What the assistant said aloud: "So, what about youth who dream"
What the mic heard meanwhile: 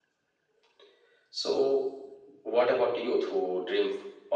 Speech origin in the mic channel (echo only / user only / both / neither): echo only